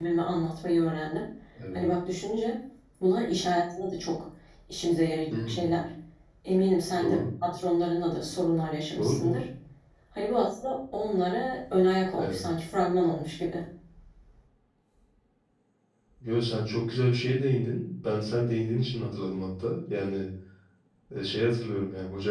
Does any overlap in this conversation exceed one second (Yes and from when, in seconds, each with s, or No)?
No